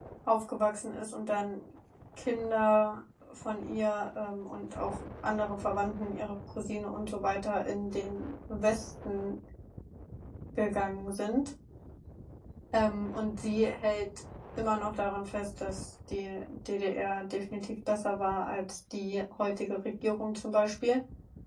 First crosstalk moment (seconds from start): none

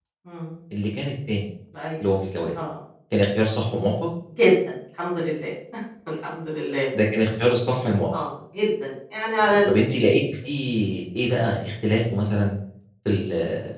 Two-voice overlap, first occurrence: none

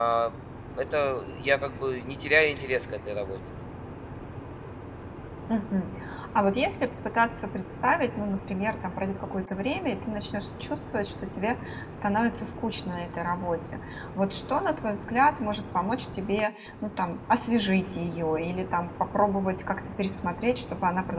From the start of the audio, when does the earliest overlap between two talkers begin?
none

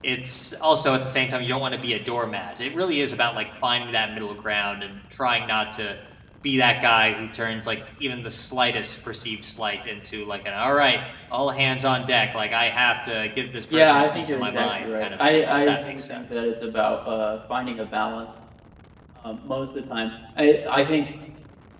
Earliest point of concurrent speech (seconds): 13.7 s

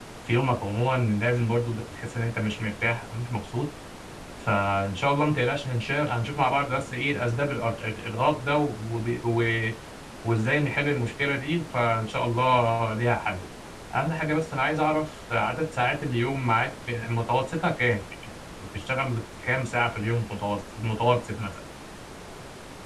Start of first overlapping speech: none

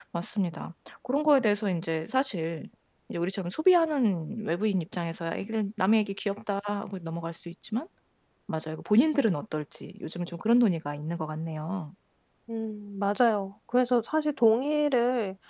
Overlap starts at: none

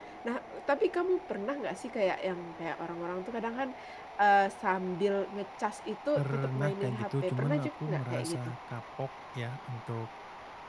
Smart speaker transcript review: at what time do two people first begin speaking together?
6.2 s

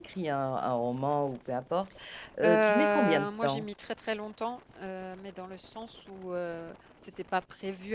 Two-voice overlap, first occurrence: 2.4 s

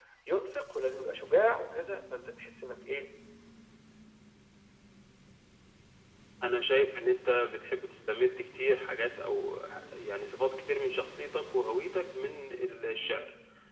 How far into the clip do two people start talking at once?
none

